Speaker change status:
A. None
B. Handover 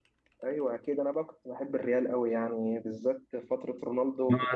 B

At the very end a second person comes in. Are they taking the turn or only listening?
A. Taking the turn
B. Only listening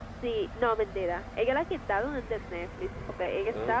B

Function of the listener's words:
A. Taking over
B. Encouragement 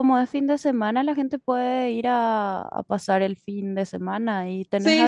A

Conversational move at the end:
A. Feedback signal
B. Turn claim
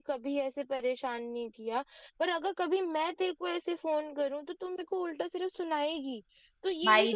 A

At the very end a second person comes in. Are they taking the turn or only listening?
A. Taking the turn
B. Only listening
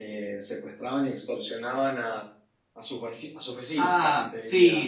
A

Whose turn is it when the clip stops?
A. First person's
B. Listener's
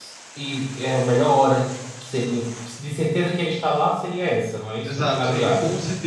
B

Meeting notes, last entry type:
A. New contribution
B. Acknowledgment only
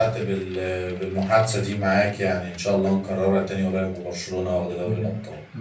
A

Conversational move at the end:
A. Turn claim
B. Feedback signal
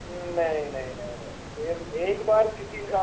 B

